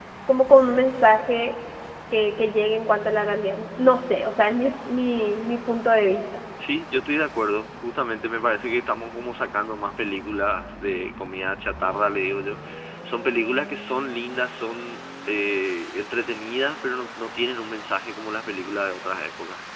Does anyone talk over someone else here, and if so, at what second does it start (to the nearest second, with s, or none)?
none